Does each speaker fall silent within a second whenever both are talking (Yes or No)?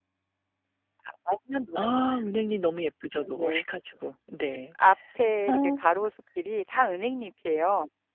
Yes